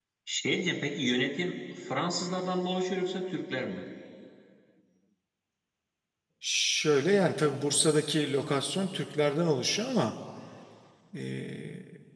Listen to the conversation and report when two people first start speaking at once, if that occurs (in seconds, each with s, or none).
none